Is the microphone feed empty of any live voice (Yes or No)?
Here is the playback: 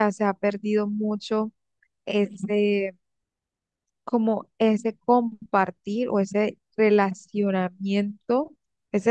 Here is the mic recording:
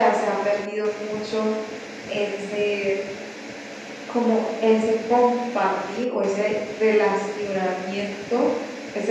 Yes